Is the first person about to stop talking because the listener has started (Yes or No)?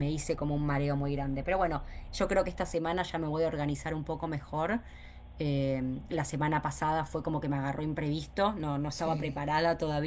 No